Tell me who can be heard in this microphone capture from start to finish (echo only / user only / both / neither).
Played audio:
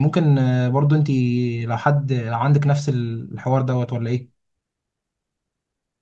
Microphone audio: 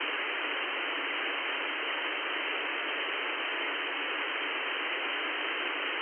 neither